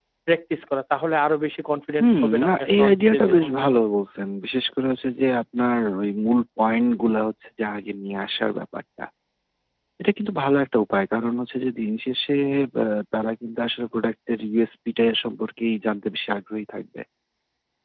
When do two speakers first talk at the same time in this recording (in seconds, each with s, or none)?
2.0 s